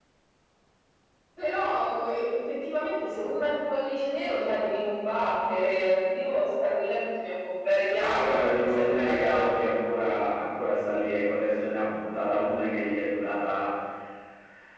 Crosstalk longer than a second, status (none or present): present